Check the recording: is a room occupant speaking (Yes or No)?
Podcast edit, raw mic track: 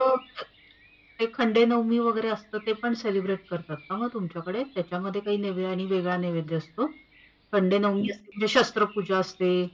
No